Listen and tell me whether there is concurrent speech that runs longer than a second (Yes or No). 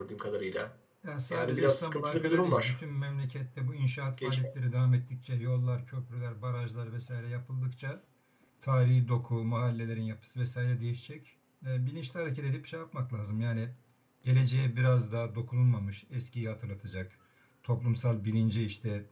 Yes